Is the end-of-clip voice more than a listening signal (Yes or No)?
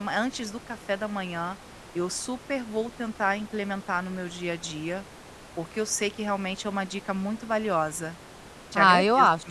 Yes